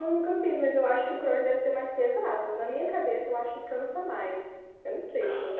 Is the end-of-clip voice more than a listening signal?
Yes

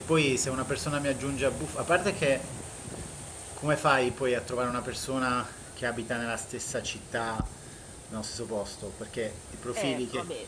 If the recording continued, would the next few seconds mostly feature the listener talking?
Yes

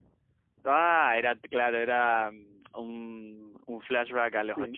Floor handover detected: Yes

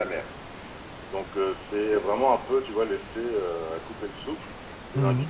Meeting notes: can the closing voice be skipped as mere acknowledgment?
Yes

